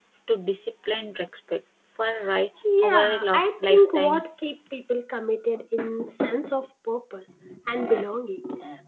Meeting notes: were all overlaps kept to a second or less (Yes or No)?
No